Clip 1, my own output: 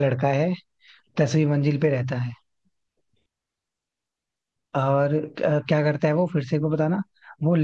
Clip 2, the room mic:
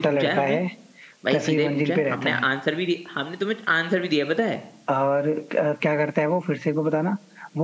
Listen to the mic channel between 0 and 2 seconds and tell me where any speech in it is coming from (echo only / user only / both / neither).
both